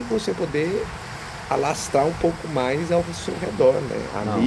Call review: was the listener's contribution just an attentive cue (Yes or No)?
Yes